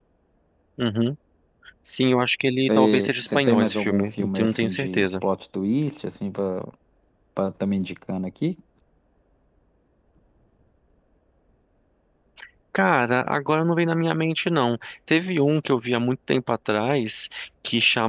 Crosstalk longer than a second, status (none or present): present